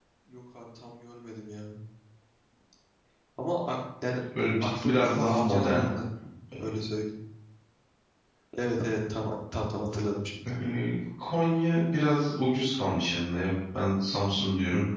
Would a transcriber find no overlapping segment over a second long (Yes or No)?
No